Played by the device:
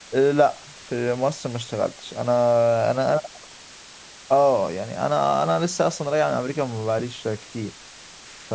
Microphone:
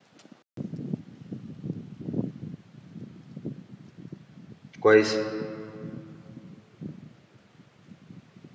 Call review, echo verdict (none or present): none